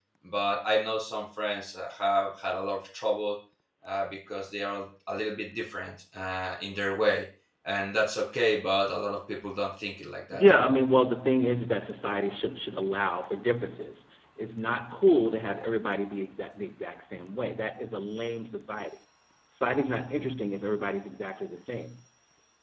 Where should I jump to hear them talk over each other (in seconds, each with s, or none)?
none